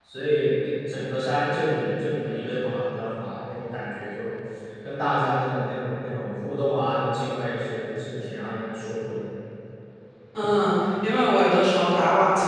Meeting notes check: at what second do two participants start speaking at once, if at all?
none

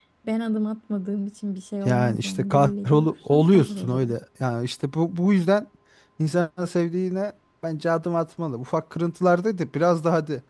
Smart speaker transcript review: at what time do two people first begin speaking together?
1.8 s

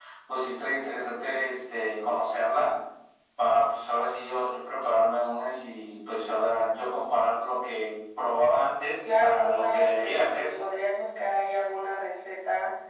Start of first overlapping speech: 9.0 s

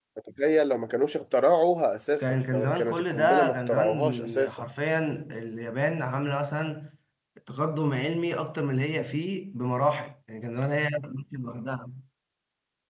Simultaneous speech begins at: 2.2 s

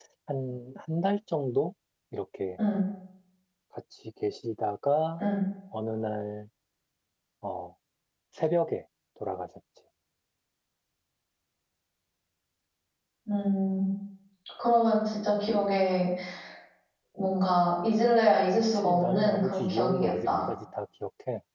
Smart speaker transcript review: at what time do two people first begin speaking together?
18.5 s

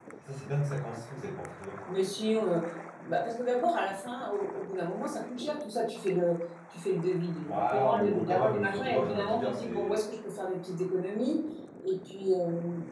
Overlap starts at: 7.5 s

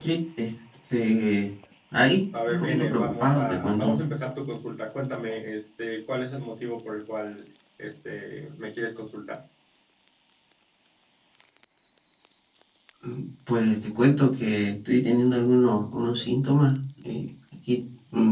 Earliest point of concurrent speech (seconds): 2.3 s

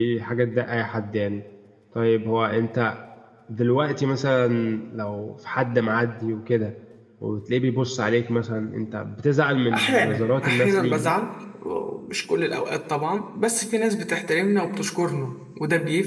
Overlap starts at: 9.7 s

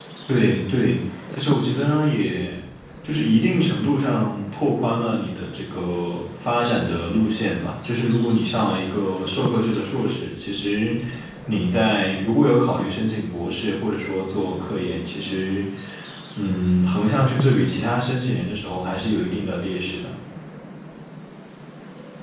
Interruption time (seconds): none

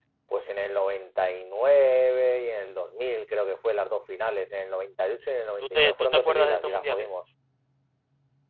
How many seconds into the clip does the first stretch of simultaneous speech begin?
5.6 s

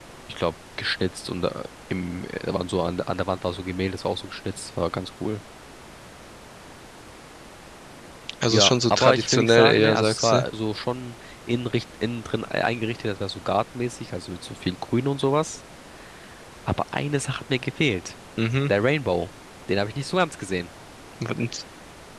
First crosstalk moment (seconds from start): 8.5 s

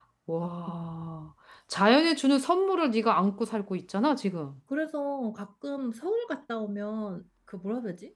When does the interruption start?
none

